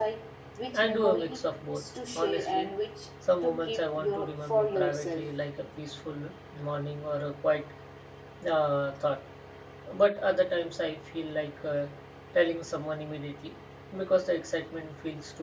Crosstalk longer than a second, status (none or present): present